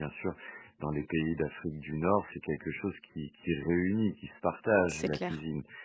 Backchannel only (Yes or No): Yes